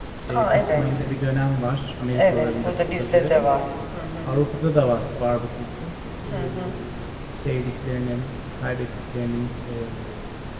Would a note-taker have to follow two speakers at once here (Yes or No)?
Yes